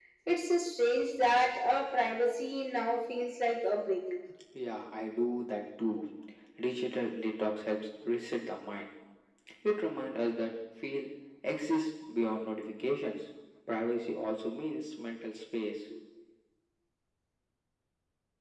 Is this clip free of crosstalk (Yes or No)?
Yes